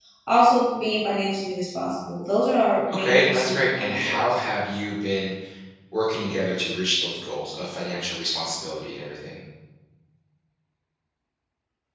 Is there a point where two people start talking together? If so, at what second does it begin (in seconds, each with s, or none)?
2.9 s